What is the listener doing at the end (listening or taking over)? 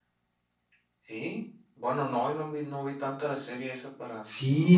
taking over